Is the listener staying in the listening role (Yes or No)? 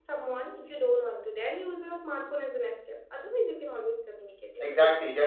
No